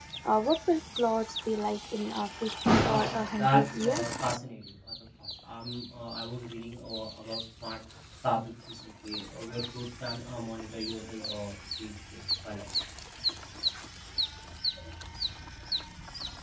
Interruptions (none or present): present